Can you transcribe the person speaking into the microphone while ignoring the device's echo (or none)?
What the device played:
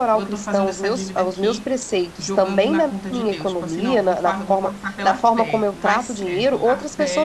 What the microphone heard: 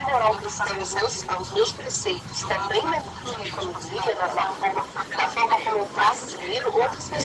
none